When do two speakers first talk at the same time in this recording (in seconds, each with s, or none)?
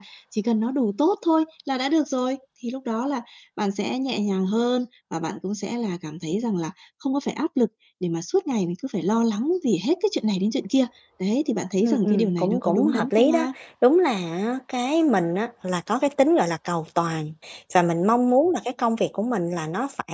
11.8 s